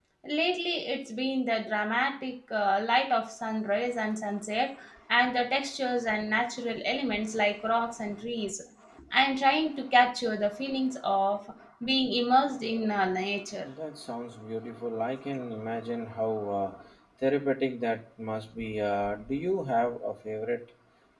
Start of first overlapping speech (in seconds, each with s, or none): none